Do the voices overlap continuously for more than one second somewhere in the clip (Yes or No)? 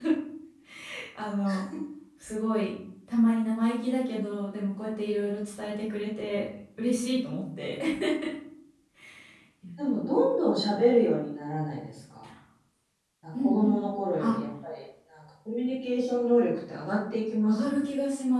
No